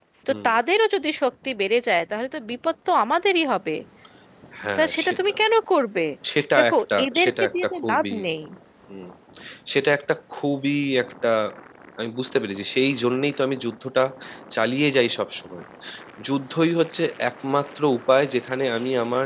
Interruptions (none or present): present